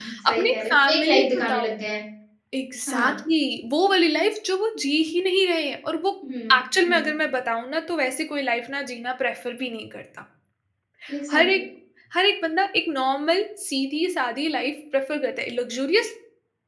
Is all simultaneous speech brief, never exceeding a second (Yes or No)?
No